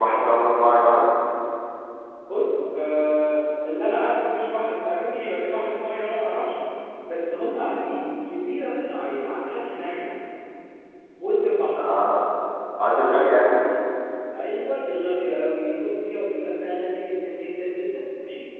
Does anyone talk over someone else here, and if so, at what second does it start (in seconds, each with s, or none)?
none